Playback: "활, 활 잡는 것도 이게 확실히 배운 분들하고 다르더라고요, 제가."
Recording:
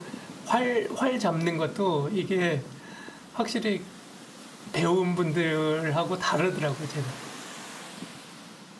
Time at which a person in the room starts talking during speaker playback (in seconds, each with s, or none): none